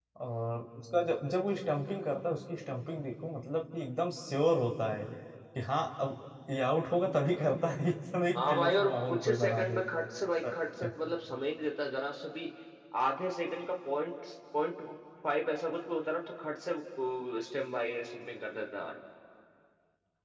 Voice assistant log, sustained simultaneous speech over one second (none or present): present